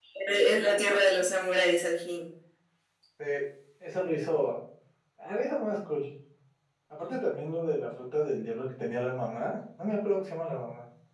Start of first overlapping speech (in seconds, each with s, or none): none